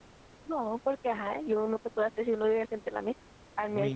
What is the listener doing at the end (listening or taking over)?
taking over